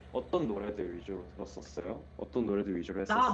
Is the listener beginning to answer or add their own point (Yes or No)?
Yes